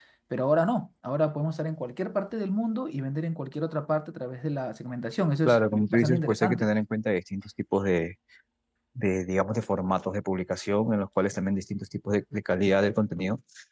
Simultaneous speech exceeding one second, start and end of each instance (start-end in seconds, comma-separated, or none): 5.5-6.7